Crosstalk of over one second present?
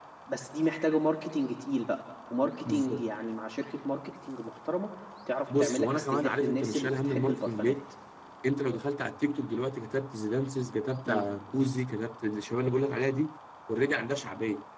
Yes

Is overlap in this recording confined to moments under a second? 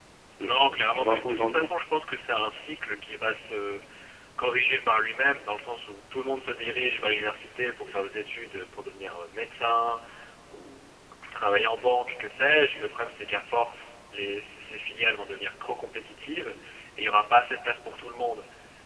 No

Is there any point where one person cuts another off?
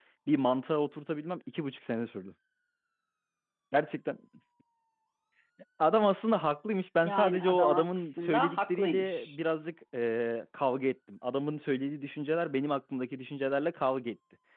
Yes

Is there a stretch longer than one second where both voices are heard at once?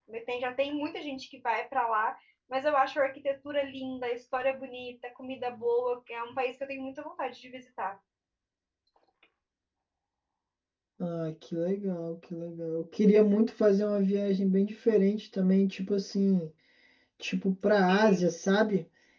No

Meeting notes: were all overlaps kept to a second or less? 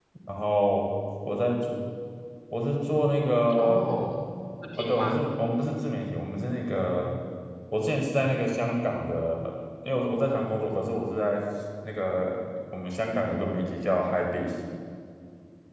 Yes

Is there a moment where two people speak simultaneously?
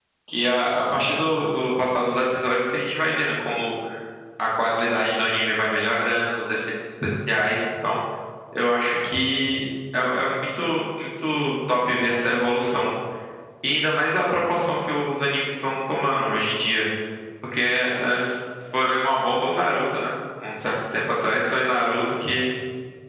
No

